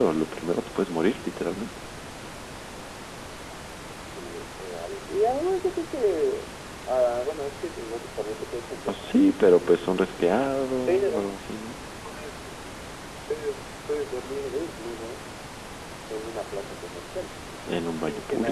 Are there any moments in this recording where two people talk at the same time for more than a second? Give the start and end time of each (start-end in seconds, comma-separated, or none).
none